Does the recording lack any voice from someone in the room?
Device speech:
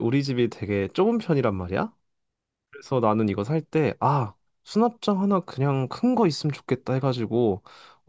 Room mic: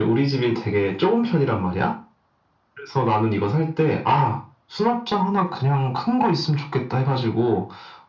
Yes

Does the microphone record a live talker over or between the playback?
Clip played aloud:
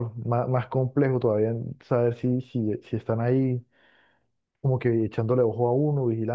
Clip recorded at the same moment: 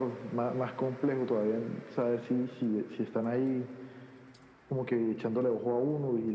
No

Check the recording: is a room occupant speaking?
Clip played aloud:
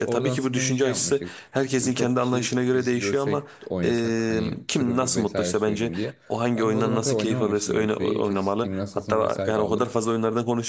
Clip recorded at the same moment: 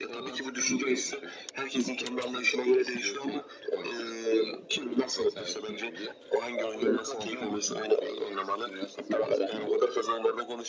No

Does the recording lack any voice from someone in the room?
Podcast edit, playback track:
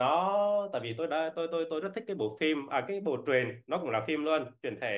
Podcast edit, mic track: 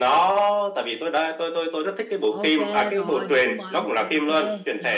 No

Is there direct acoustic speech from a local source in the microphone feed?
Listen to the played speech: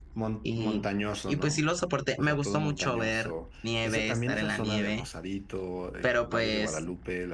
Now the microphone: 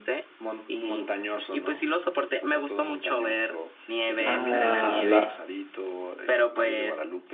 Yes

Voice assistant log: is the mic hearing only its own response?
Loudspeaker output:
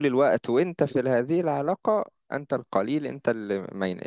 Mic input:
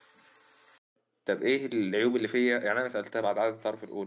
No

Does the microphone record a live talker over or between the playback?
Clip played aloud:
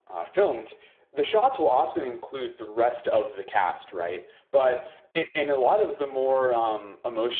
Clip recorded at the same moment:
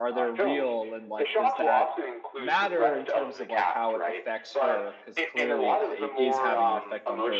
Yes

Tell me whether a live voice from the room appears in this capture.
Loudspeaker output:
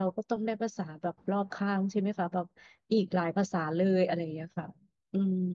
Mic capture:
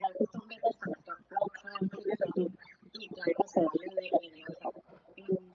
No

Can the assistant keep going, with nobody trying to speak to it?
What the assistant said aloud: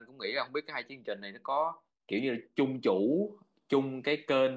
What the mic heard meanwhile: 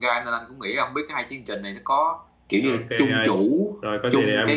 No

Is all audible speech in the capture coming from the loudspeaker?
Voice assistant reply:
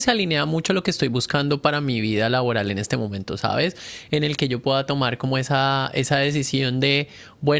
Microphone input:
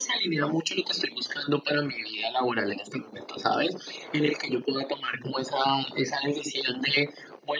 Yes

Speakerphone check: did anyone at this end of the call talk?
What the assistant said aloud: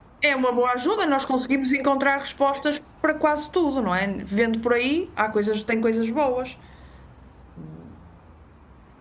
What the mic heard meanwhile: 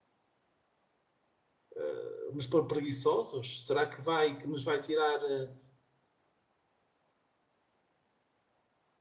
Yes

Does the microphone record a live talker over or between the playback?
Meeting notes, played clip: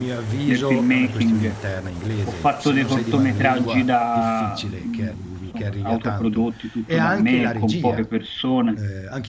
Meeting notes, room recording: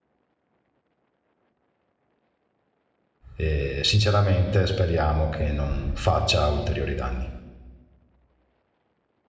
Yes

